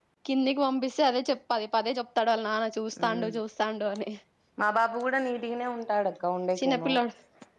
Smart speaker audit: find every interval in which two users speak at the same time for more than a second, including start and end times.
none

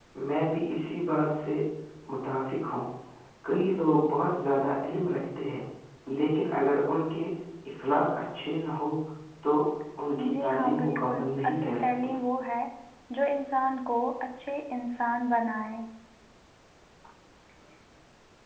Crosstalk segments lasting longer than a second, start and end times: 10.4-12.1

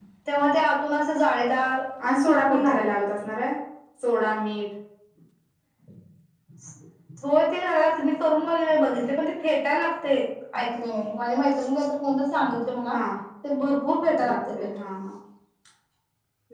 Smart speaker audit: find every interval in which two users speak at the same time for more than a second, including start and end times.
none

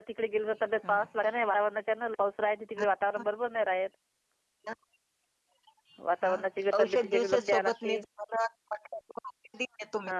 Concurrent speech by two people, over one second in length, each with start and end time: 6.8-8.0

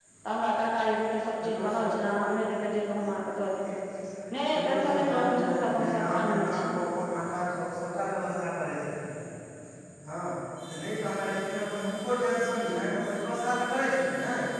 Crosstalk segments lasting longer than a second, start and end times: 4.5-6.6

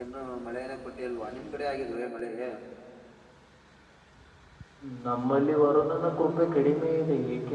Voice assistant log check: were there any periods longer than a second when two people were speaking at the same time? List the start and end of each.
none

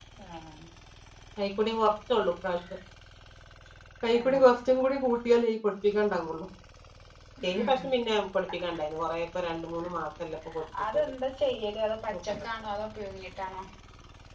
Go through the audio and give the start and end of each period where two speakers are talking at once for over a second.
none

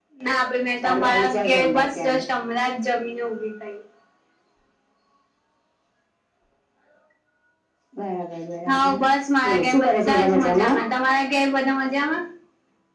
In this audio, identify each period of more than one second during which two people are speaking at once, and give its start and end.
0.8-2.2, 9.4-10.8

